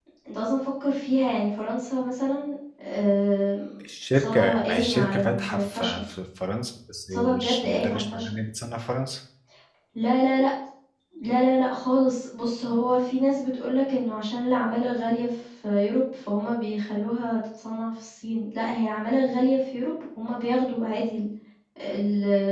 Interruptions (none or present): present